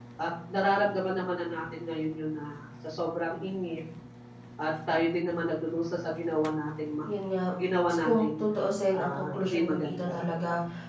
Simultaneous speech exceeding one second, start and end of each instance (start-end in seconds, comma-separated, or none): 8.9-10.2